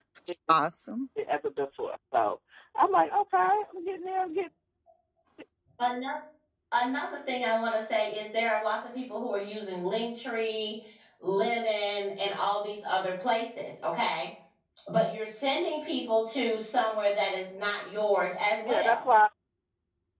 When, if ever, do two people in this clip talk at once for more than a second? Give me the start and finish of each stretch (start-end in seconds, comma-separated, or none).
none